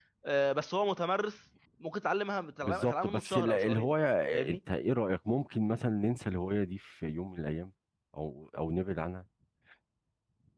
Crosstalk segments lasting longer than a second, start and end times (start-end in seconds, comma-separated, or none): 2.6-3.9